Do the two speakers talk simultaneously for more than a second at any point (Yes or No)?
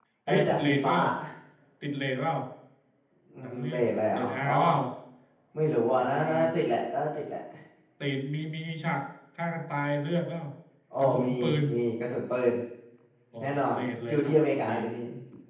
Yes